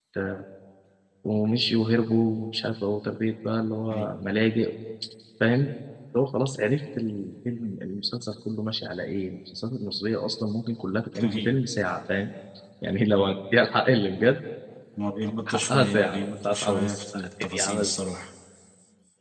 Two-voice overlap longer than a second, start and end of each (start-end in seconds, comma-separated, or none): 15.5-17.9